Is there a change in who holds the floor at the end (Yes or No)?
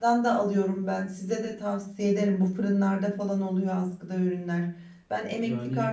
No